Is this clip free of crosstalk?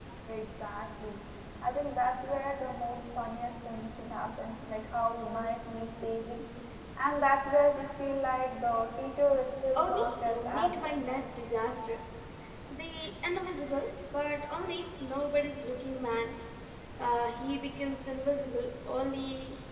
No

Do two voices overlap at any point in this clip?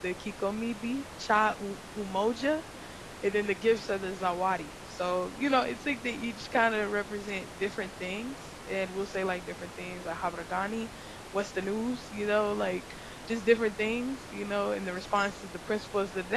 No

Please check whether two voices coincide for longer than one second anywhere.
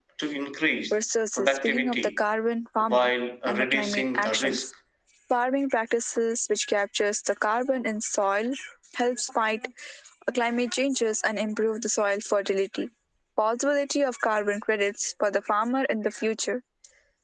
Yes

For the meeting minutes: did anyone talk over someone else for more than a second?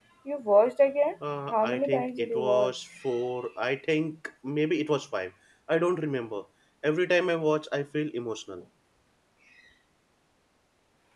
Yes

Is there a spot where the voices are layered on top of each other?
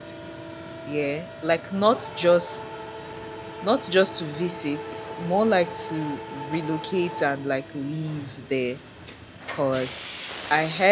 No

